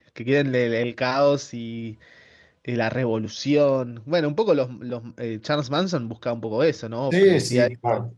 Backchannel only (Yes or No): No